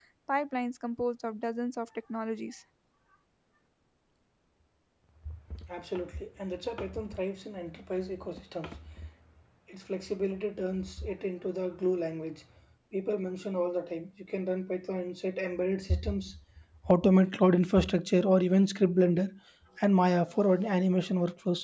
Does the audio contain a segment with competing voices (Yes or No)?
No